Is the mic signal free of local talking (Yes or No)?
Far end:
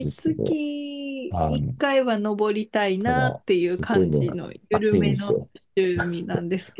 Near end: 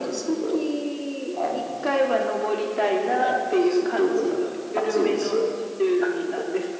Yes